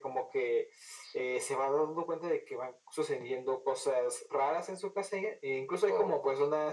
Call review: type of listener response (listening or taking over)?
listening